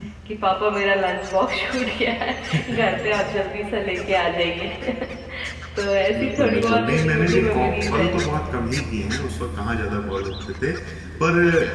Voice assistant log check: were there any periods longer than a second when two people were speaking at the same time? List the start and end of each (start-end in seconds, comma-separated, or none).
6.2-8.1